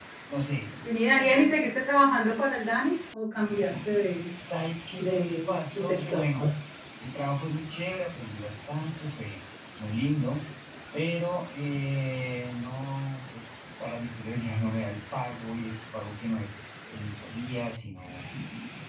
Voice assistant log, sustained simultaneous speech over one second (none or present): present